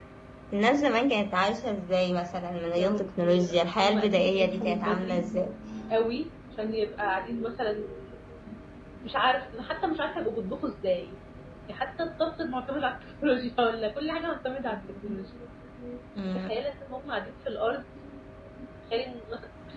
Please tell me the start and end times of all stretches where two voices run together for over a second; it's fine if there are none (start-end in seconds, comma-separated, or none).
2.8-5.3